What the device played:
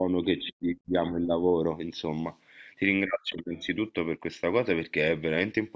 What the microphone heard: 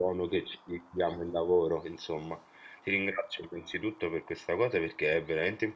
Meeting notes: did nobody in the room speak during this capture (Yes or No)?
Yes